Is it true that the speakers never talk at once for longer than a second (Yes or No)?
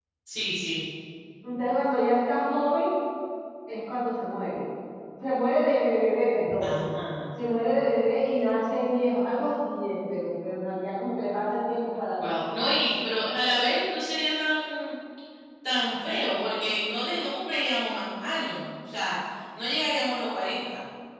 Yes